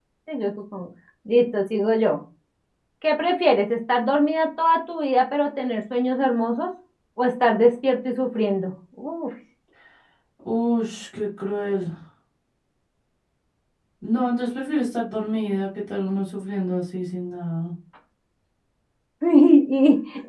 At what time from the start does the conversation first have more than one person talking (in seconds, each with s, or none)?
none